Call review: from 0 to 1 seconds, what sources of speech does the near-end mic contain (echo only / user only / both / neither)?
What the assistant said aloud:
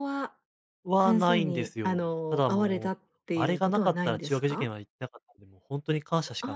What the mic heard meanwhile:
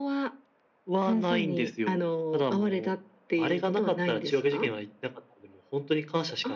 echo only